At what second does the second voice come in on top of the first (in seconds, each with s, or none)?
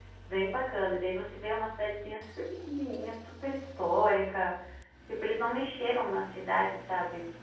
none